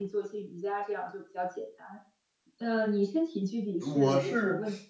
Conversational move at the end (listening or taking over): taking over